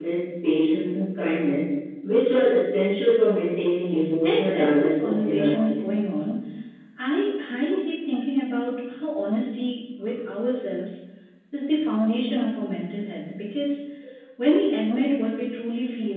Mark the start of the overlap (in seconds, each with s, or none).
4.2 s